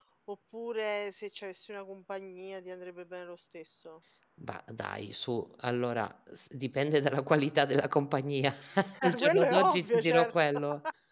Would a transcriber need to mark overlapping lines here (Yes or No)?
Yes